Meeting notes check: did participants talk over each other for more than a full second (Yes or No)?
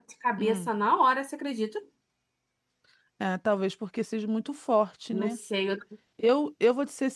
No